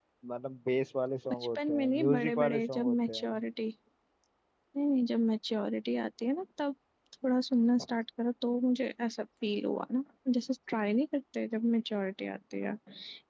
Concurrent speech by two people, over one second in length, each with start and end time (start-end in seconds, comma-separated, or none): 1.6-3.4